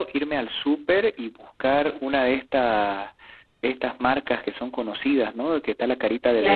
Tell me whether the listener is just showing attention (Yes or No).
Yes